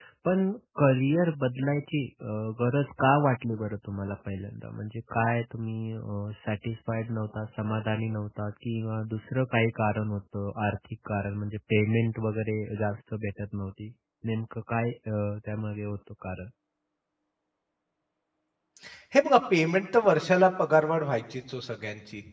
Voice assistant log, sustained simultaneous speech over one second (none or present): none